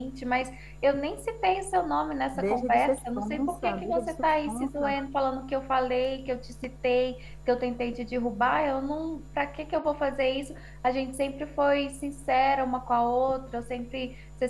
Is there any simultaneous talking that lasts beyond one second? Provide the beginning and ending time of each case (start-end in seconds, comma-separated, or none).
2.4-4.9